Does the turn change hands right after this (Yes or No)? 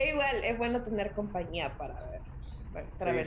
No